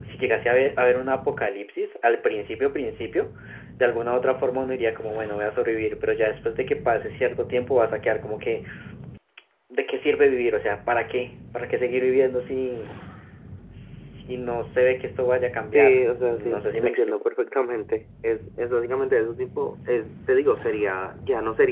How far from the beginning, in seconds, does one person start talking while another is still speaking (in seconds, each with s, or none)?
15.7 s